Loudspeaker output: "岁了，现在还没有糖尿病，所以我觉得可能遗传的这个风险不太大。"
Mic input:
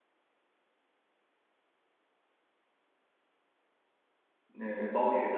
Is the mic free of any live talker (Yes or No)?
No